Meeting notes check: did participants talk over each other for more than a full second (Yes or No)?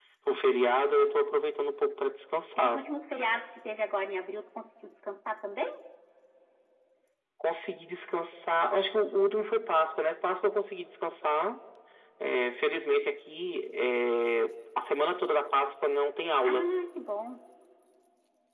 No